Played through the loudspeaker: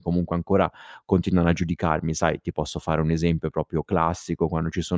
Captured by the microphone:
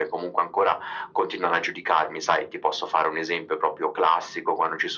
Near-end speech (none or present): none